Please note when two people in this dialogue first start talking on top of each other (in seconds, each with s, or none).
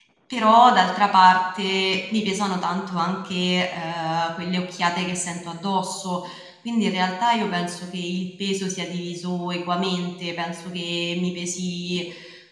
none